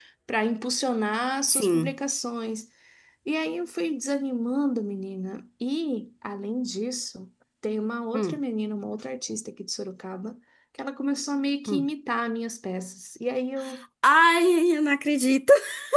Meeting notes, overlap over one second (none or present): none